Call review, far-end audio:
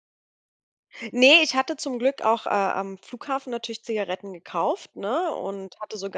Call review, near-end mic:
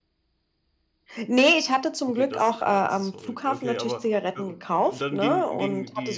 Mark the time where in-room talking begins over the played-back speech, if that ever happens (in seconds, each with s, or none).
2.1 s